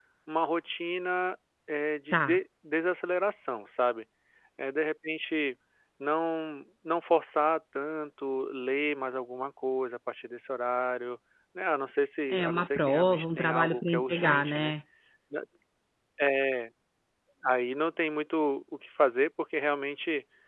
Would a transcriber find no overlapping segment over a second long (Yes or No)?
No